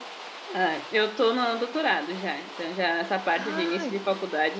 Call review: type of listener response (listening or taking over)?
listening